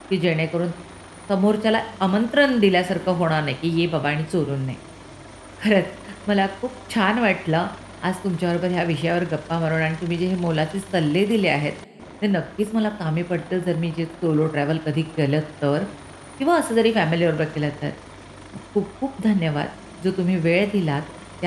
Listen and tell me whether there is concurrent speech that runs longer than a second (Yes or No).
No